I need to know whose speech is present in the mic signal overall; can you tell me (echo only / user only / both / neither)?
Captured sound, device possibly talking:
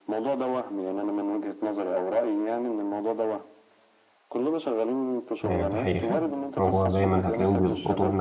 both